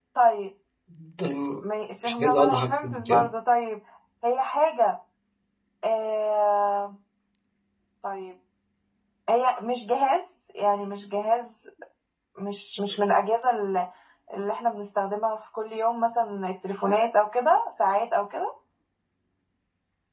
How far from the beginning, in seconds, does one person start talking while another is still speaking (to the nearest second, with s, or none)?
2 s